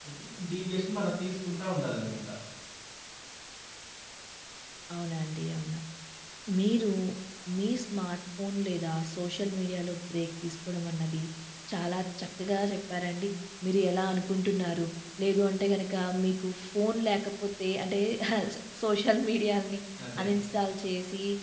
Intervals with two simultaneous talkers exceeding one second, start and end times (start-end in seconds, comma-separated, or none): none